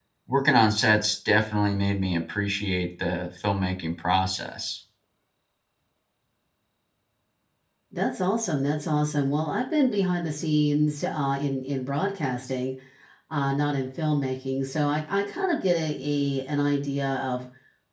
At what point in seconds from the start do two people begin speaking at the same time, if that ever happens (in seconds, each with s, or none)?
none